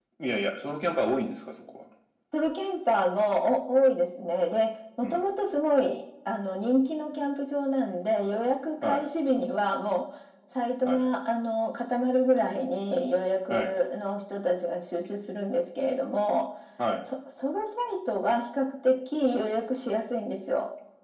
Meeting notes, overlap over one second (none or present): none